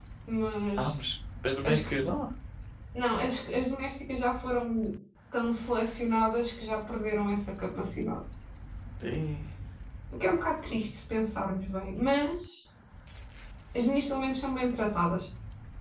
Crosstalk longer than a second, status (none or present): none